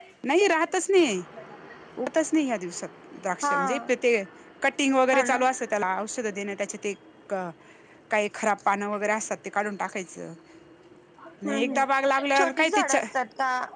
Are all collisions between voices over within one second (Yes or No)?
No